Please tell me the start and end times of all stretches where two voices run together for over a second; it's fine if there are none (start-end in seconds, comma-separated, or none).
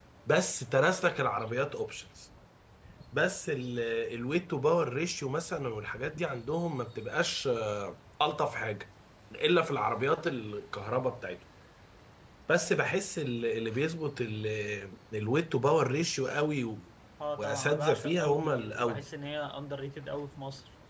17.4-19.0